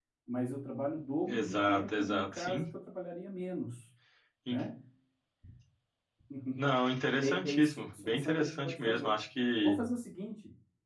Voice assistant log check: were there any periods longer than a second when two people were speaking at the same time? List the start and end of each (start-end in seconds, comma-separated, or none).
1.3-2.6, 7.2-9.2